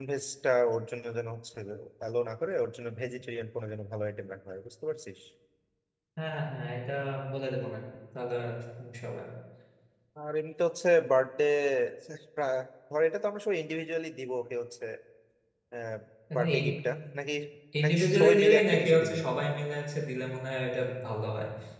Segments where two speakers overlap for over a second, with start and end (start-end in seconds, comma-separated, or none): 17.8-19.1